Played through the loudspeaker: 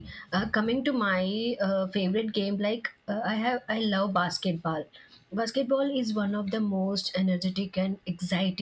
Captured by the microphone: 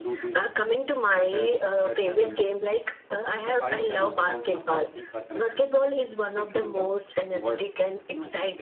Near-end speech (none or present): present